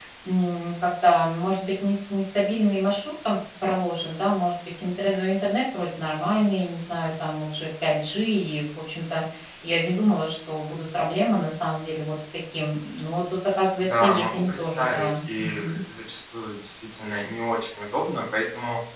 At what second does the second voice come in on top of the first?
13.8 s

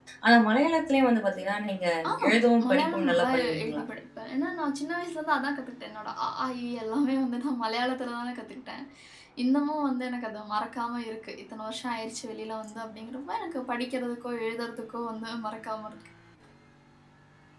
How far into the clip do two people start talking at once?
2.3 s

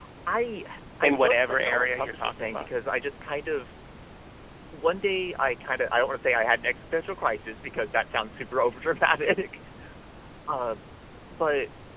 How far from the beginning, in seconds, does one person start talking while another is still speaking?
1.0 s

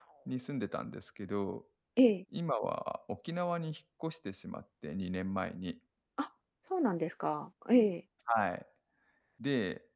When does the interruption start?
none

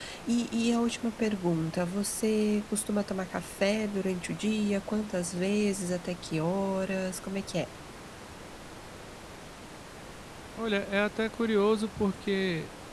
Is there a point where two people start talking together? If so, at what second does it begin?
none

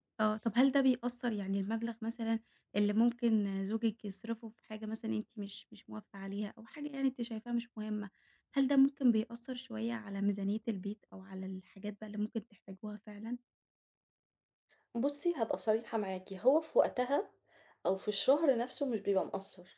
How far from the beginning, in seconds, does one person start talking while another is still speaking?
none

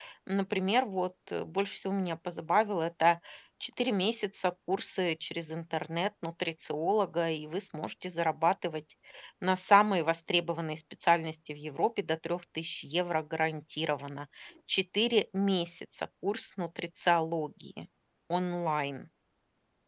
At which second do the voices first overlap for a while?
none

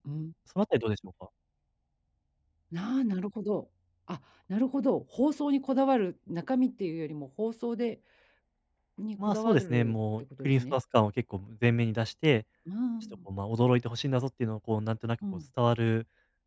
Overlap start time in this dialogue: 9.2 s

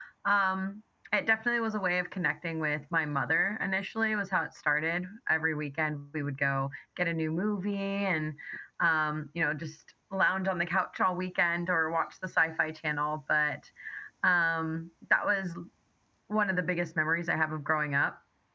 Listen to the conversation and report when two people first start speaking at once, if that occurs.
none

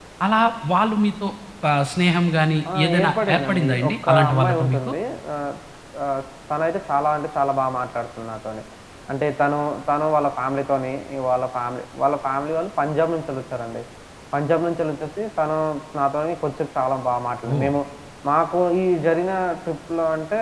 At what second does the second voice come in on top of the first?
2.6 s

